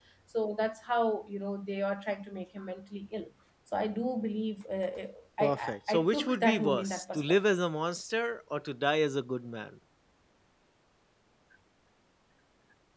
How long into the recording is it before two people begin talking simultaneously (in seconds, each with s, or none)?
5.4 s